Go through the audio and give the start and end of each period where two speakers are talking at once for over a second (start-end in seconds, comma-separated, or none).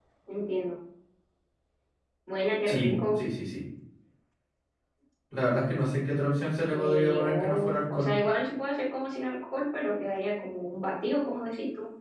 6.7-8.1